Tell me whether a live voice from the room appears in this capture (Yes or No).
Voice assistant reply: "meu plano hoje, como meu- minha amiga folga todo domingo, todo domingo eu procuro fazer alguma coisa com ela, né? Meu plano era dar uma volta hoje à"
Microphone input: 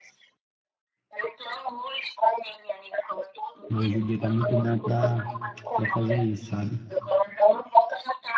Yes